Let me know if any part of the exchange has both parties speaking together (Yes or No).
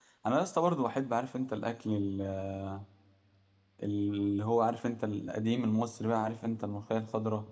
No